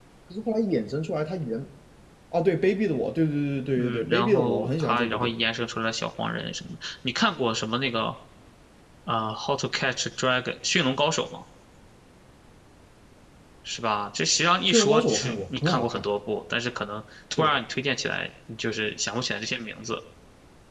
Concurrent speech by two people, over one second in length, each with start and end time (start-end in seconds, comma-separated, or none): 3.8-5.3, 14.7-16.1